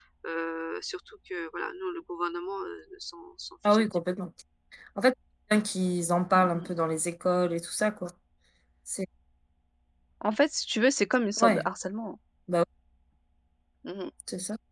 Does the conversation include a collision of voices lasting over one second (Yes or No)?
No